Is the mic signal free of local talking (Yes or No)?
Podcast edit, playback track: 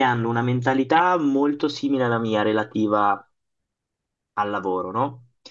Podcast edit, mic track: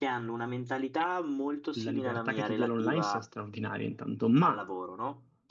No